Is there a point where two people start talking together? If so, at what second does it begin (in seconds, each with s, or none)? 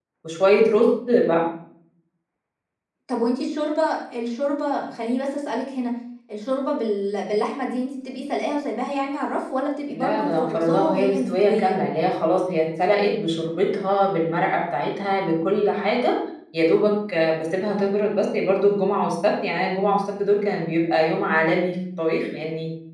9.9 s